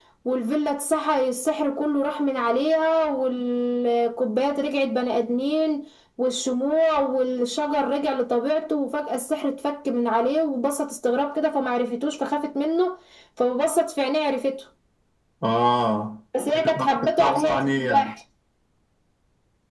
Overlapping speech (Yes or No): Yes